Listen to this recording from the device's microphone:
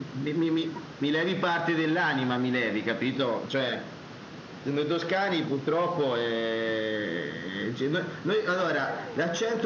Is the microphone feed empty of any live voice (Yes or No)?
No